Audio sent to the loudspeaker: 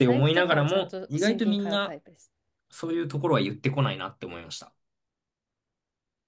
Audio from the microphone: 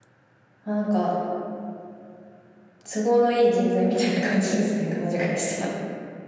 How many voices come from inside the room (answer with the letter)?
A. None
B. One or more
B